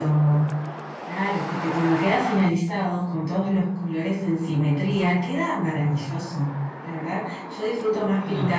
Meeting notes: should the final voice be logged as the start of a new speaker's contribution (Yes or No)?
No